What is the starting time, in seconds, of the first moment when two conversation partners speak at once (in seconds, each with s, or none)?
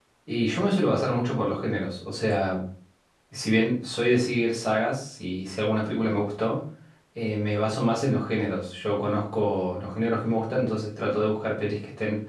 none